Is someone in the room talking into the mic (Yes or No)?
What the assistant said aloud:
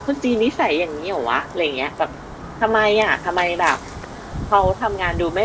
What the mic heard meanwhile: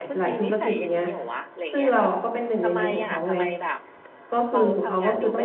Yes